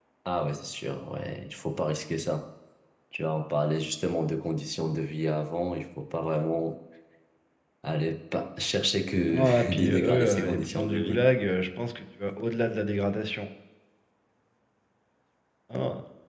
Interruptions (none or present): present